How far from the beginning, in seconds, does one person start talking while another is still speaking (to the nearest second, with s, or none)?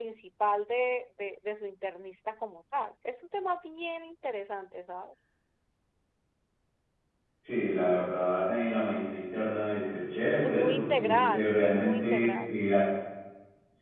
10 s